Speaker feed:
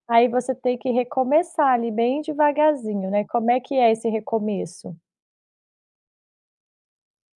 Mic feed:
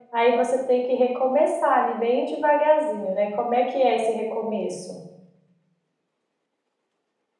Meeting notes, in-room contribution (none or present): none